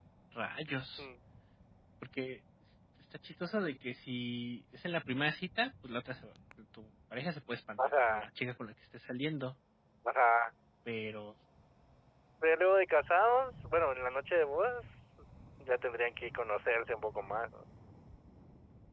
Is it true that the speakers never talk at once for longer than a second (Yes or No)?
Yes